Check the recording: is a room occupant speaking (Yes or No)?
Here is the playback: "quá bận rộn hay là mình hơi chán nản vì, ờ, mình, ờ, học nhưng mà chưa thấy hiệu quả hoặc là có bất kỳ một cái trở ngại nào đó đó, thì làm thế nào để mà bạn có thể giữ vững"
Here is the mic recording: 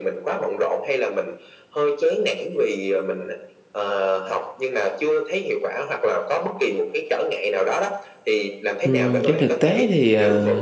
Yes